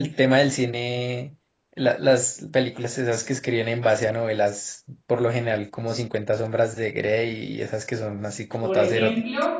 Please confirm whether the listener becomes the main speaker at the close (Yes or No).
Yes